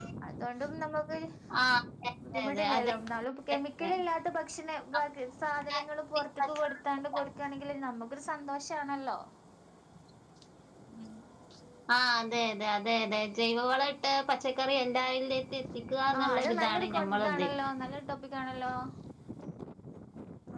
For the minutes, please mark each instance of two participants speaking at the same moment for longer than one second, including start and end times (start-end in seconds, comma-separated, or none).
16.2-17.4